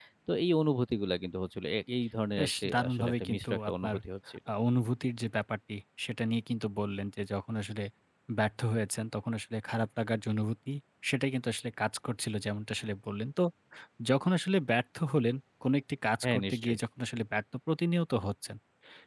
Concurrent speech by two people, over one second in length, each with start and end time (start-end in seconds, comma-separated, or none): 2.4-4.0